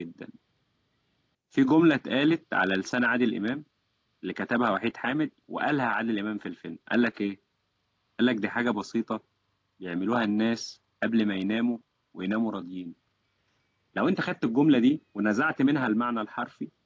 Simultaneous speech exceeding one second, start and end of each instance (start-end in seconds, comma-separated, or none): none